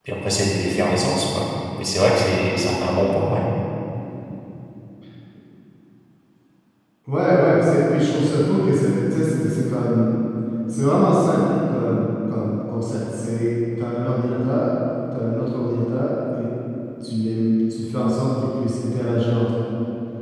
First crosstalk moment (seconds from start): none

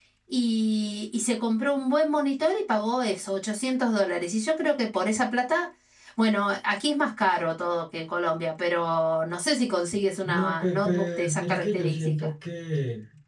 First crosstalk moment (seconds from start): 10.2 s

